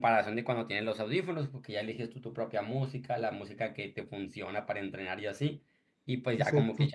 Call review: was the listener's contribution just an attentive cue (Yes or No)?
Yes